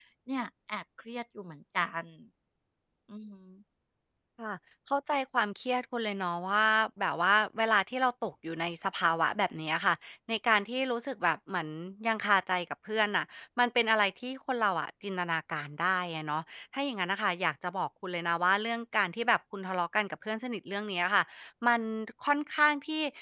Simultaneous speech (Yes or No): No